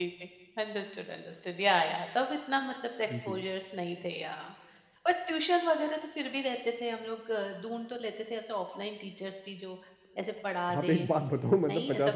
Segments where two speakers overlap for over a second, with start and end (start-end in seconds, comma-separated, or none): none